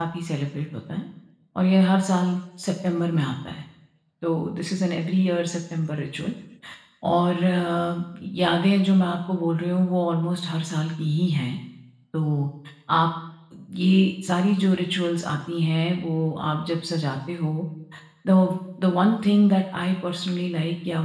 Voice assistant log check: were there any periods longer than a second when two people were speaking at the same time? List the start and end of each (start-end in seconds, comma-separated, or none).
none